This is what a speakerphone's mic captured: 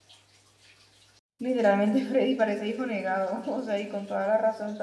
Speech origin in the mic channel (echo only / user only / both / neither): user only